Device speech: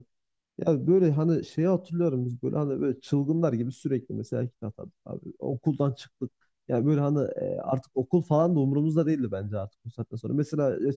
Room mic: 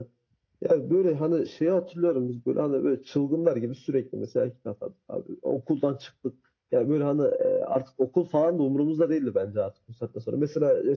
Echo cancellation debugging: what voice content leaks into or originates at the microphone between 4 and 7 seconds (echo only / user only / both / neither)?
echo only